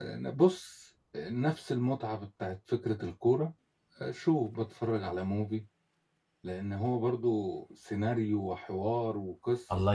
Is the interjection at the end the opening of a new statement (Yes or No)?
Yes